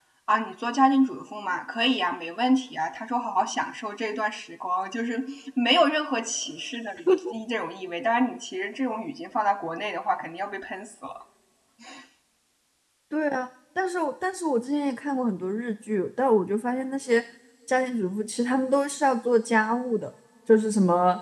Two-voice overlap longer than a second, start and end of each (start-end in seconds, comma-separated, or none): none